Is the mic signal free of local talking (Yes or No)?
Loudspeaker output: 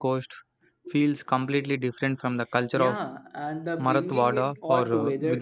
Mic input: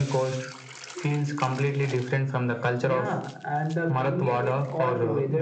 Yes